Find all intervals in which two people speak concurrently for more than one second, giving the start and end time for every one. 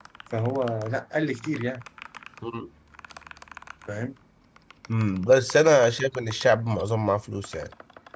none

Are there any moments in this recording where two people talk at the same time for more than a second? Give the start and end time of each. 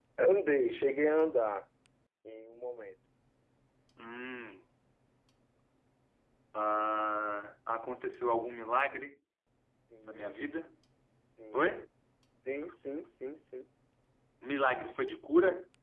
none

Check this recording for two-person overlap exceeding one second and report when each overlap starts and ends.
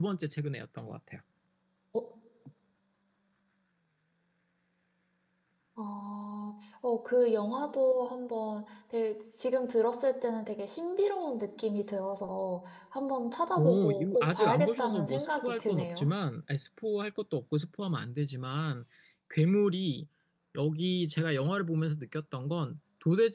13.6-16.1

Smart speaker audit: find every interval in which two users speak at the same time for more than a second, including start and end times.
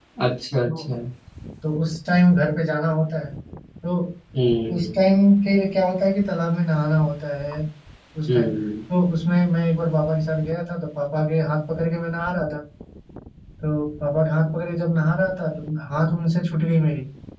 none

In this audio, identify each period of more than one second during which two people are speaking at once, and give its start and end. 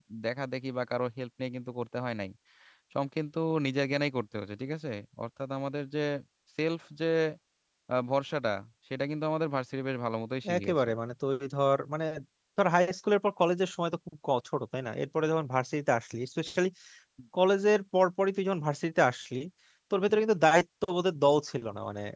none

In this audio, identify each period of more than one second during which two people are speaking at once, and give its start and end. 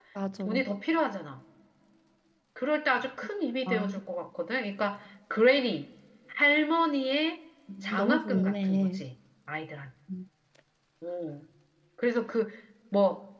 7.8-9.0

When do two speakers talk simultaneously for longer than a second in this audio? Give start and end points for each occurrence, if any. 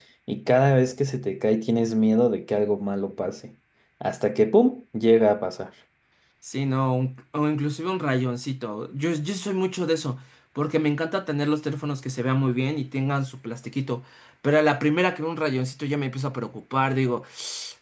none

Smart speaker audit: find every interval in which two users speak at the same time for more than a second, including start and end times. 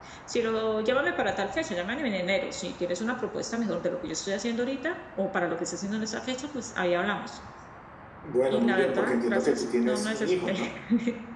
8.5-10.5

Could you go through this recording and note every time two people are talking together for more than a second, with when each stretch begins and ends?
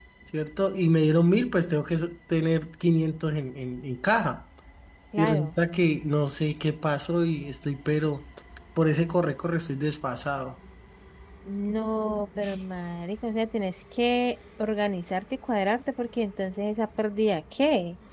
none

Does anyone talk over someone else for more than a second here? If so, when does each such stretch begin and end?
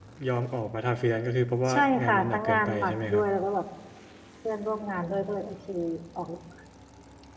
1.7-3.2

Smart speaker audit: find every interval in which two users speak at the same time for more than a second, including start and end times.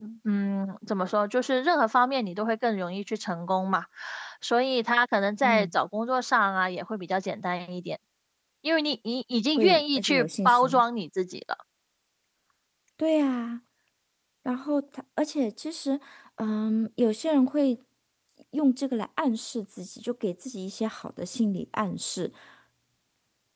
9.6-10.8

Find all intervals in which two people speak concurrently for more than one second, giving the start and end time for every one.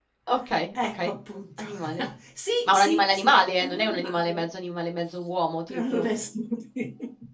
2.7-4.4

